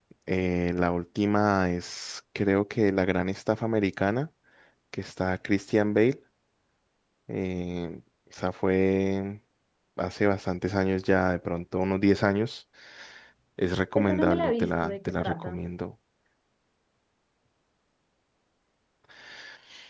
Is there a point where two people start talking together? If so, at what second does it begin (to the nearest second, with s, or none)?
14 s